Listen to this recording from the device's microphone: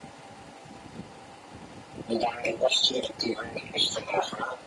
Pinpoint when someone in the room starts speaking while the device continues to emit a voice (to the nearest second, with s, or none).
none